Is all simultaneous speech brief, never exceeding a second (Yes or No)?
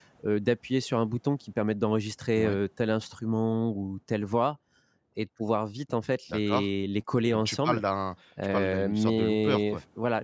No